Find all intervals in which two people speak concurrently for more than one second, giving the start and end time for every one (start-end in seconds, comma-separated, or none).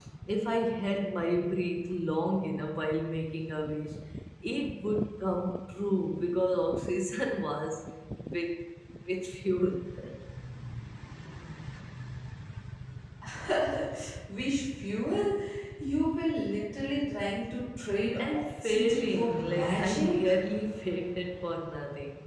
18.3-20.3